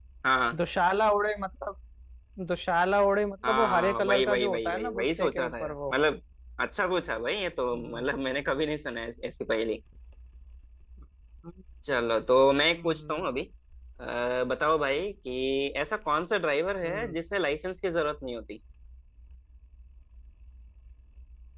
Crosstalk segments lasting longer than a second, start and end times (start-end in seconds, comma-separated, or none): 3.4-5.9